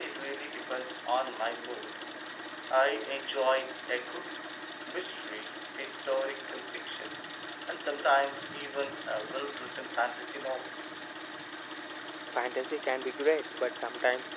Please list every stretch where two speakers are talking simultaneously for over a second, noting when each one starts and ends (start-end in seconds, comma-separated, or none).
none